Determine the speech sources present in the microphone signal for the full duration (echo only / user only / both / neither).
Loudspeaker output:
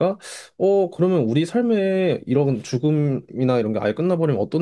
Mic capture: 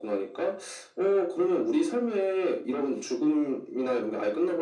echo only